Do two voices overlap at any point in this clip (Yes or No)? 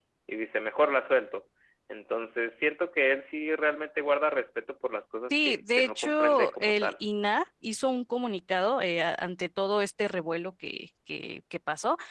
Yes